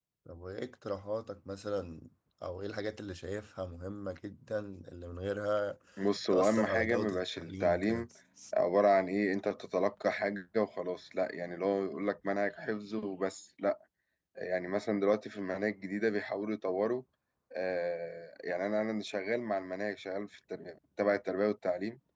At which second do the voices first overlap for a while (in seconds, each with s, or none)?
6.3 s